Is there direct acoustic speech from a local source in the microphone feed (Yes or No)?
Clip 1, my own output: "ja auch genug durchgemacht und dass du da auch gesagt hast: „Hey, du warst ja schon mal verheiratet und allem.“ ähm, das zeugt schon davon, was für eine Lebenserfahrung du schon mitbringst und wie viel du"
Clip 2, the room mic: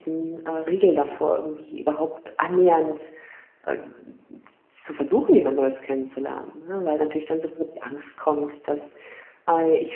Yes